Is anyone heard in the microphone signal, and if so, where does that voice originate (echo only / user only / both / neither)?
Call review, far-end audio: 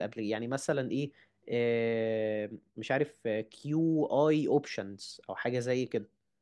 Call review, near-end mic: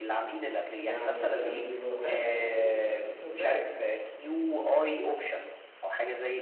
both